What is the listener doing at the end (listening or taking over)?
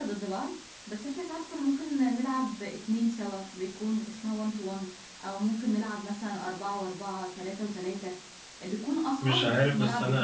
taking over